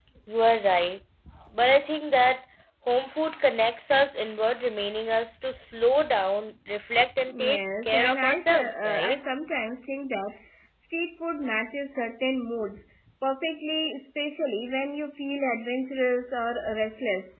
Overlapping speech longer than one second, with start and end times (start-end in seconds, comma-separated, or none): 7.3-9.2